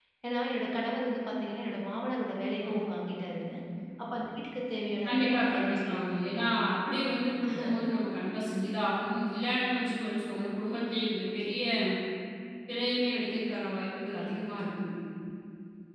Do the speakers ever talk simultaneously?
Yes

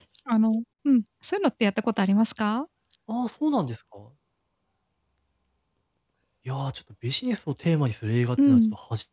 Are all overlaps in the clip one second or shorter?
Yes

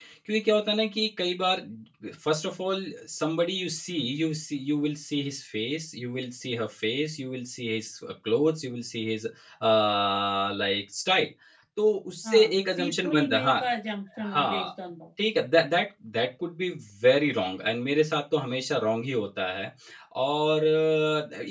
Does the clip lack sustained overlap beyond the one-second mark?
No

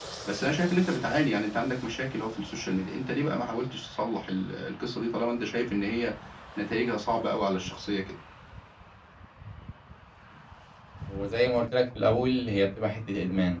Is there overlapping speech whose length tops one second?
No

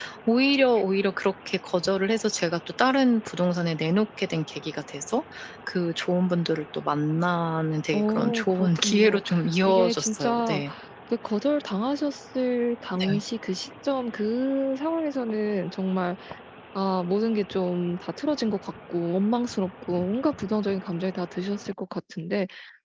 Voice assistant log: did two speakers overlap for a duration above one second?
Yes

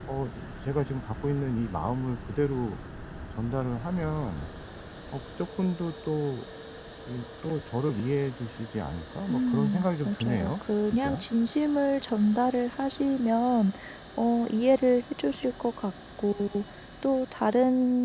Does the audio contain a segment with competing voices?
Yes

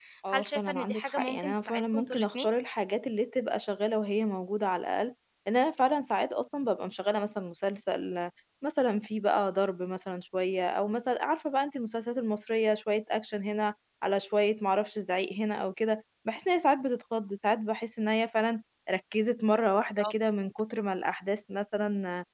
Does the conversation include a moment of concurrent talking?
Yes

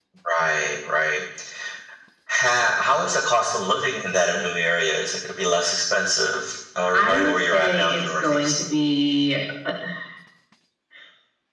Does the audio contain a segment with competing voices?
Yes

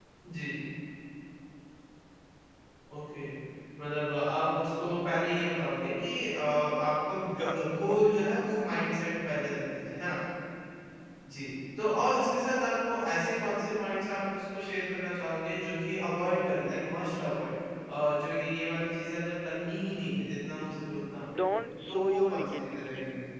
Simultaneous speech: Yes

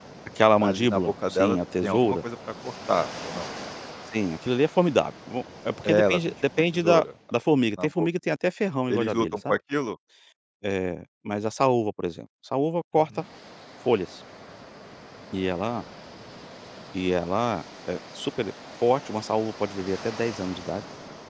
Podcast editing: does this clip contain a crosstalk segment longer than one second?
Yes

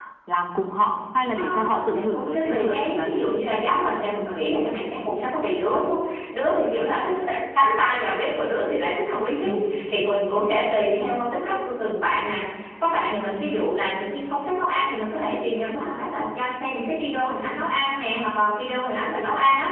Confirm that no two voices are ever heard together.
No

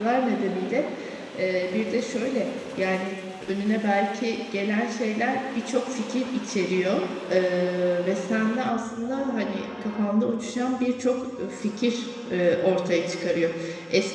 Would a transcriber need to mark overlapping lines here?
No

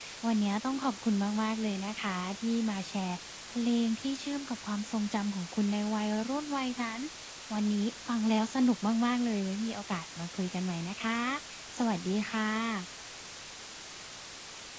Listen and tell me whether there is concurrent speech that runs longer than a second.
No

